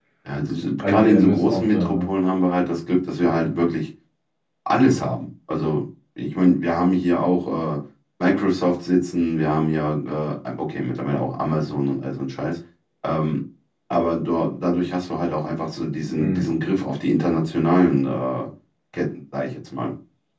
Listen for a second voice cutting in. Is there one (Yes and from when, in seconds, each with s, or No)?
Yes, from 0.8 s